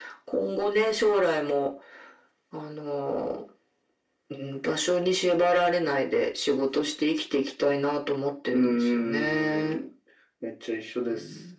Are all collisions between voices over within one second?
No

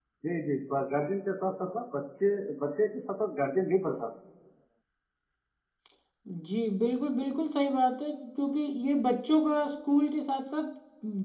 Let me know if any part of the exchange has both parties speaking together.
No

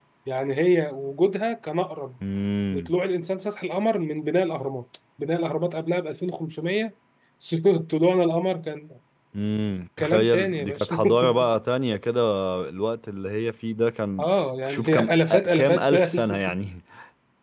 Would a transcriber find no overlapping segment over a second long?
No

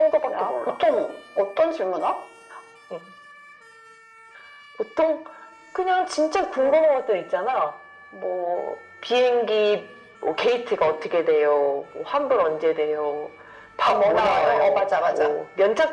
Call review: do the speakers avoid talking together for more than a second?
No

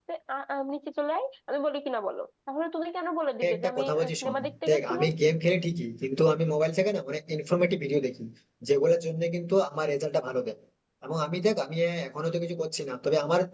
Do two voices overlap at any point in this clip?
Yes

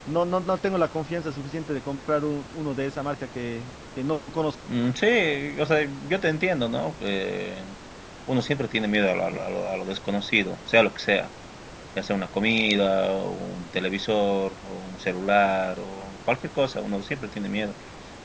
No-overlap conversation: Yes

